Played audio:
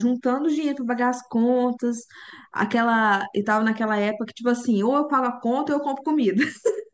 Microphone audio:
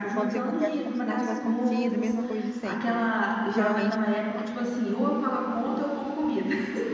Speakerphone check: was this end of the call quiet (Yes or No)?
No